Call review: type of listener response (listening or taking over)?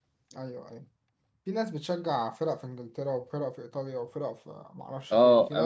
taking over